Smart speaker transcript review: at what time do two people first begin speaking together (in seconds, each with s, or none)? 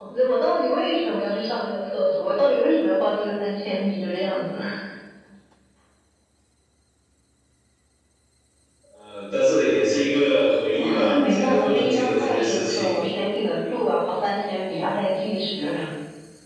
10.6 s